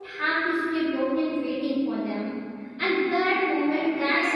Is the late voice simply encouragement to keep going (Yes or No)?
Yes